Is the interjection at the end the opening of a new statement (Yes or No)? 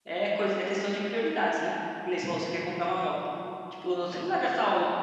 No